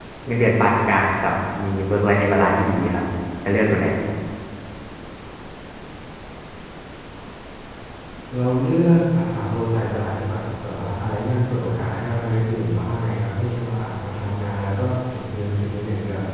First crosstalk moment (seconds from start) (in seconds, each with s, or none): none